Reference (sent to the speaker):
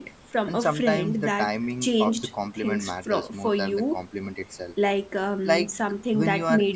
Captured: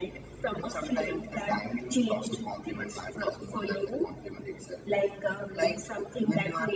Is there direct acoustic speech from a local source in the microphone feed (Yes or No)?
No